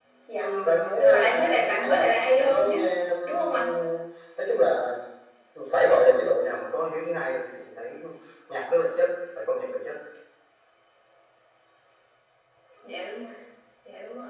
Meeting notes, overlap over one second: present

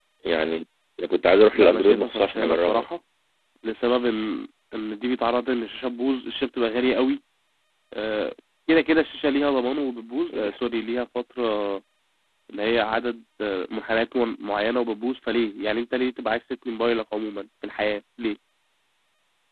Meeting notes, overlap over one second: present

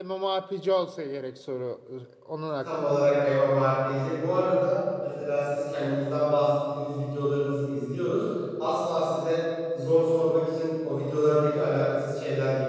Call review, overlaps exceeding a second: none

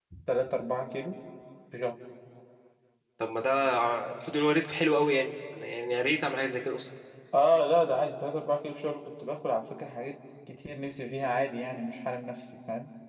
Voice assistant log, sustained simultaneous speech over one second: none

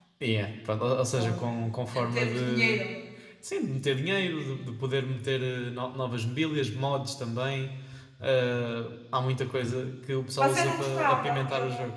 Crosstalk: present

